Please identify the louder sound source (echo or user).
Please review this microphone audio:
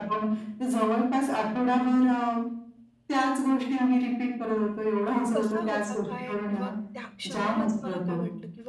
echo